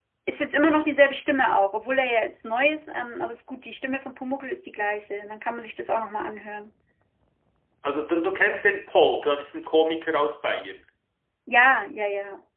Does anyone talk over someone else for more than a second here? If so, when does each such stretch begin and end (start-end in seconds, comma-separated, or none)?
none